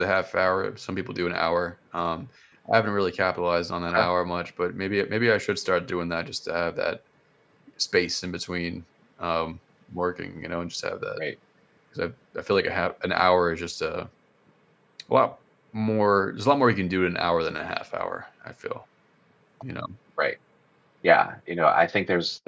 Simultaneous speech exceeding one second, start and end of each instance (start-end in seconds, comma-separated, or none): none